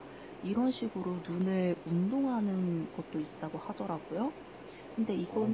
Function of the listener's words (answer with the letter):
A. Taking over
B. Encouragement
B